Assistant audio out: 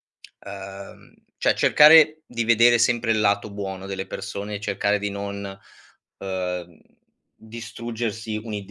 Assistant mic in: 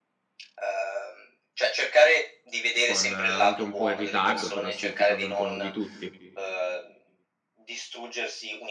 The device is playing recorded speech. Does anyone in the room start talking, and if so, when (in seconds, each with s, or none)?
2.8 s